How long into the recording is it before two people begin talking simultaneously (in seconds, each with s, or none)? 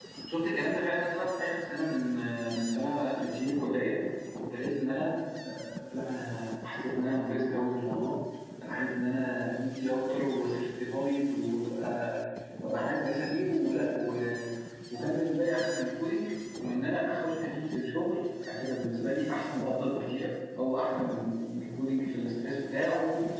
none